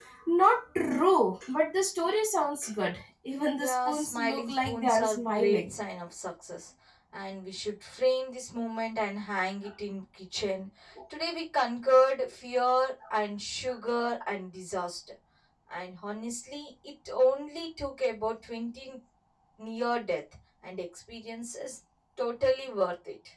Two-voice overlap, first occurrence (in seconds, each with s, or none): 3.6 s